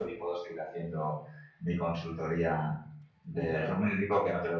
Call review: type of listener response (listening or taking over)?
listening